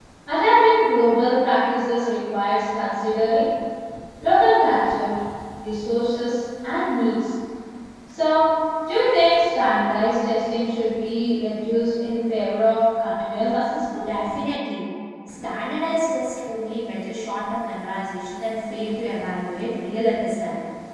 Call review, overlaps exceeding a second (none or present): none